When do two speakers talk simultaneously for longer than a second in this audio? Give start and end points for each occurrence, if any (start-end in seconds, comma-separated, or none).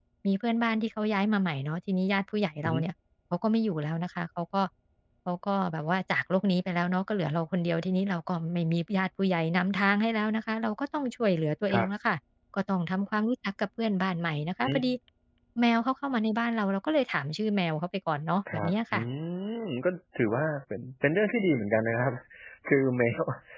none